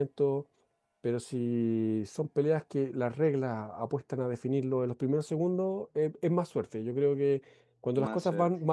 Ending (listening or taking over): listening